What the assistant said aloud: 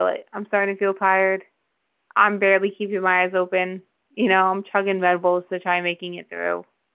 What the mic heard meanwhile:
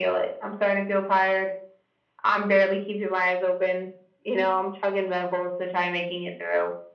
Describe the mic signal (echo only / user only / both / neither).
echo only